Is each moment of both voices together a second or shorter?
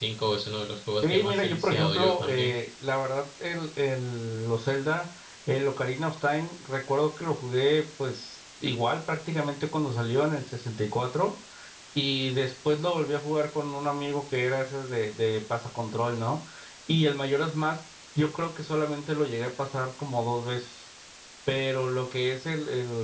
No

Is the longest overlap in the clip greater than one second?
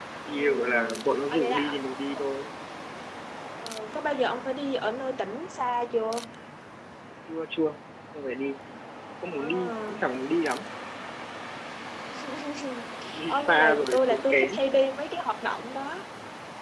Yes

